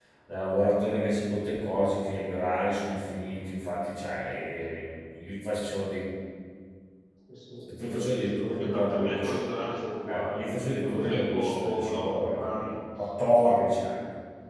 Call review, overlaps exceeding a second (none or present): present